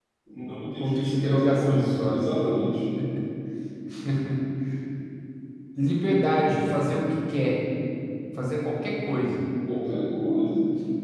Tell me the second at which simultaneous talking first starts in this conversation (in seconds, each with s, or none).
0.8 s